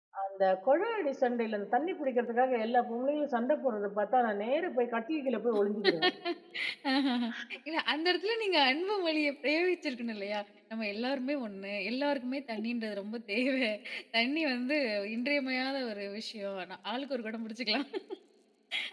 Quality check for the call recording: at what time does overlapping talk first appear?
none

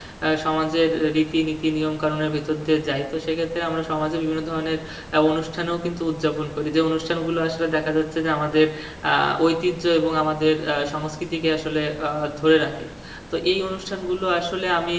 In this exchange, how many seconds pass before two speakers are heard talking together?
none

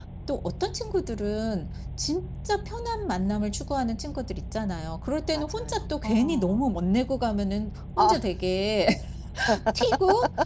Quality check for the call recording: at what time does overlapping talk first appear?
5.3 s

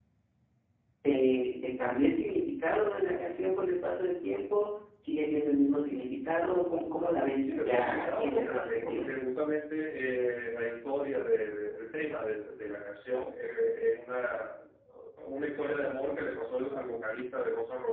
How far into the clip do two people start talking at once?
7.4 s

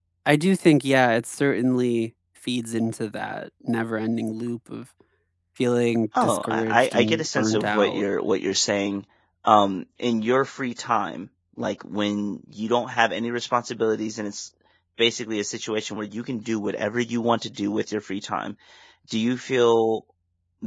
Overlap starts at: 6.2 s

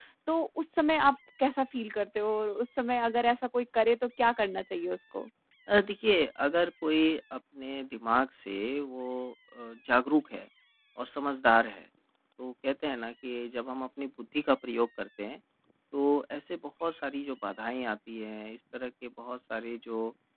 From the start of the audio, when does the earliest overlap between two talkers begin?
none

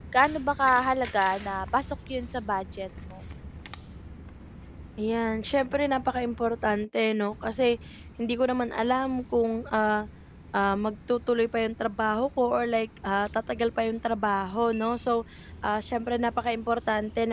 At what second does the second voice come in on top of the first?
none

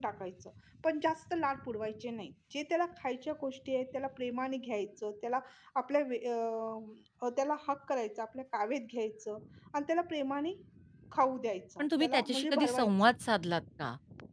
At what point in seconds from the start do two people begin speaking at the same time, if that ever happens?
11.8 s

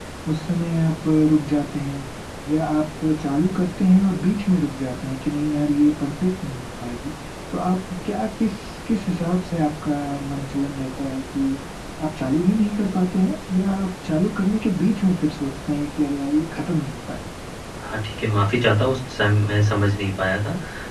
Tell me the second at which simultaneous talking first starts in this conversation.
none

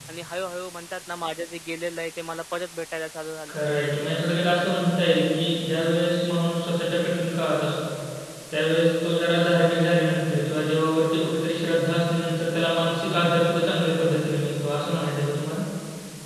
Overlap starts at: none

